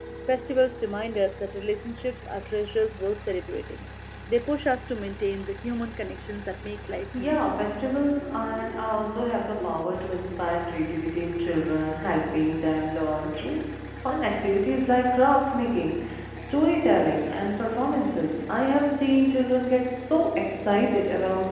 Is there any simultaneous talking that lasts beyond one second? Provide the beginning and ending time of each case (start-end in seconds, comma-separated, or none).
none